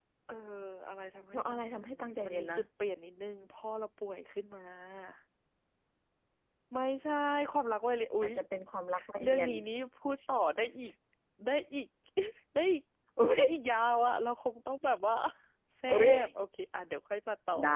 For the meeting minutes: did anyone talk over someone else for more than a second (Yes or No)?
Yes